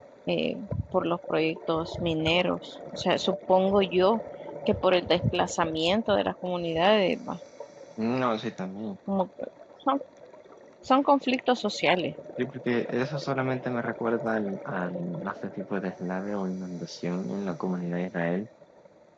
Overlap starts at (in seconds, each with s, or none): none